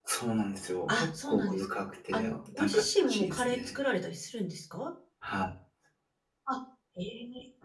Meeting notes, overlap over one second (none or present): present